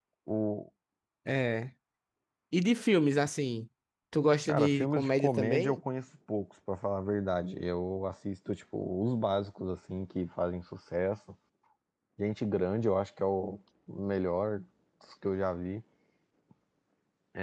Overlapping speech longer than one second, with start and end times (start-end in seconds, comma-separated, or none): 4.5-5.8